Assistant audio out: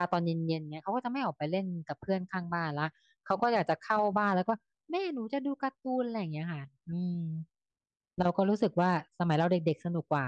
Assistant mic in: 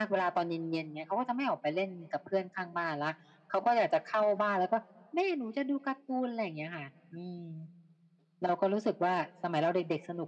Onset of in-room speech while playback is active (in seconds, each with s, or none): none